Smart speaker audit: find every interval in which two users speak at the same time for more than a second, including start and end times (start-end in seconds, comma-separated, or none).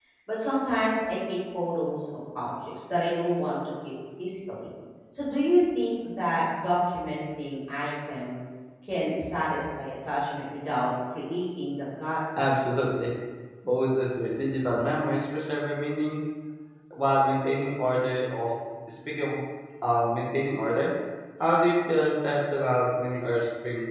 none